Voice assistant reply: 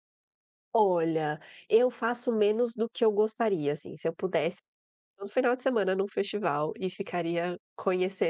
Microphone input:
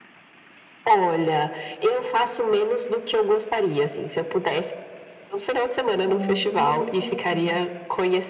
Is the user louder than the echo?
No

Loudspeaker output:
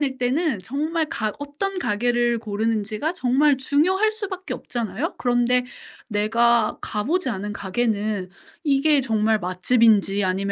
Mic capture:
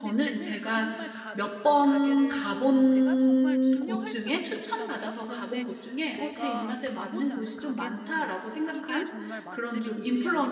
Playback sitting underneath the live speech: Yes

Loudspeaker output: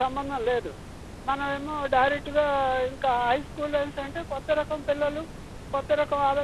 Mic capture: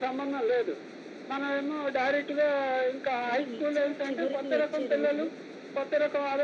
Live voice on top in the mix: No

